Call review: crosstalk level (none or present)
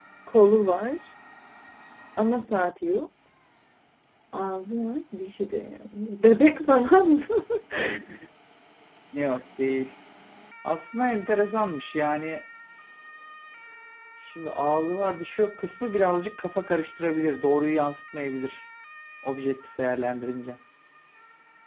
none